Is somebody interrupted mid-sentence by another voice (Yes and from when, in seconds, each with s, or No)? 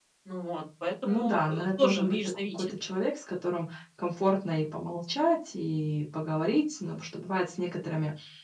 Yes, from 1.0 s